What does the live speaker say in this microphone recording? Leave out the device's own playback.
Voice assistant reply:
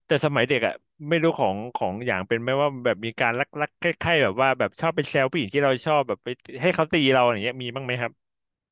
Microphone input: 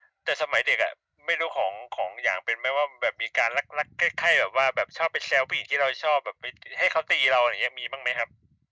none

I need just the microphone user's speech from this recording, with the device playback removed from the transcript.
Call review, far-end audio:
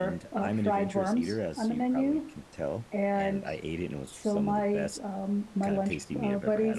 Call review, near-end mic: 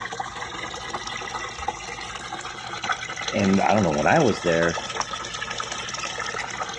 And I don't know when I was there,

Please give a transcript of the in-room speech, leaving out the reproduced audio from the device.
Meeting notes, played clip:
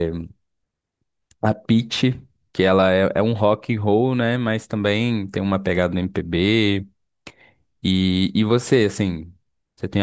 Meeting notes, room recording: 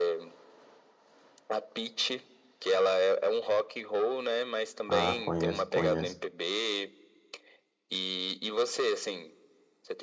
Ah, conheço, conheço.

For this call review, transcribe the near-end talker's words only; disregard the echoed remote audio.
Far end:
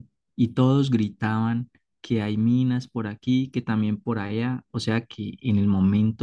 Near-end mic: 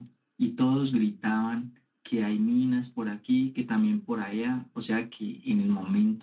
none

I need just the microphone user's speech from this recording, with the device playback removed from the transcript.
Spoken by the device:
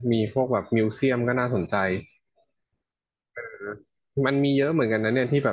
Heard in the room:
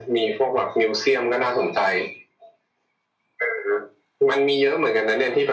none

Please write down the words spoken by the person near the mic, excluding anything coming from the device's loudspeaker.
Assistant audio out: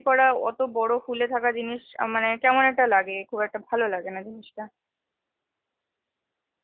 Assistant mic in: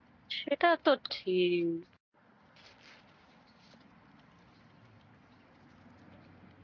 সেটা তো ঠিক

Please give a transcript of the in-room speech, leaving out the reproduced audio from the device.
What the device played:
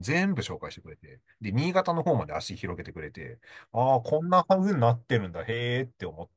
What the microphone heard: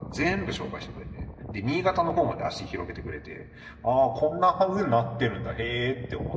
none

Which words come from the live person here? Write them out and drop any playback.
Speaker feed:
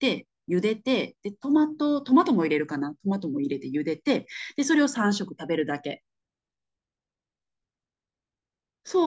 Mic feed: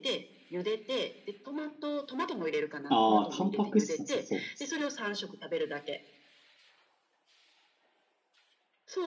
ああ、タンパク質なさそうです。

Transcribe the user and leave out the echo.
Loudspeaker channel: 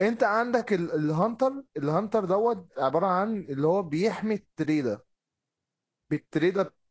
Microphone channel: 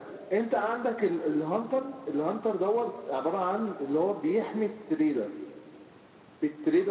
none

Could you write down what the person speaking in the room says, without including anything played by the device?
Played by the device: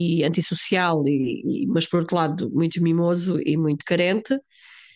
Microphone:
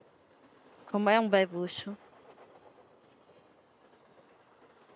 como é um bebucho.

